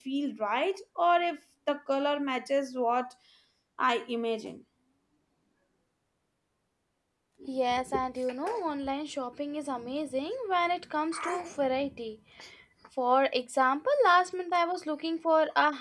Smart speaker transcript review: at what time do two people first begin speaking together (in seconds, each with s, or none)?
none